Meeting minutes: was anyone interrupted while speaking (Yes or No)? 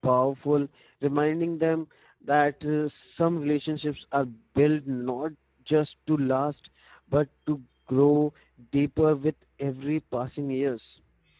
No